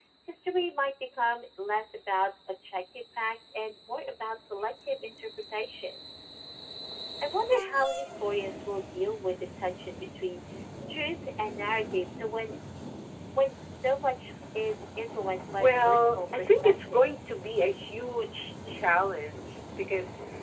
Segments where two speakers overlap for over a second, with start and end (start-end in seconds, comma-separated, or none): 15.6-17.0